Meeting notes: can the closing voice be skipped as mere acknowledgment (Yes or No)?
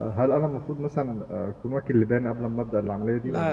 No